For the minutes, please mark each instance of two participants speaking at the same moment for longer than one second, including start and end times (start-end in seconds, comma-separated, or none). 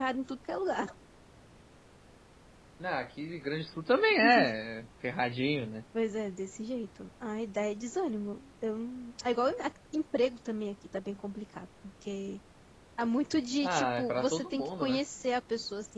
13.6-15.0